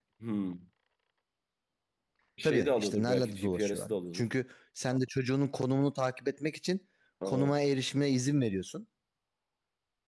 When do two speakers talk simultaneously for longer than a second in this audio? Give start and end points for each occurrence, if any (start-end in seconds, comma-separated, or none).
2.4-4.2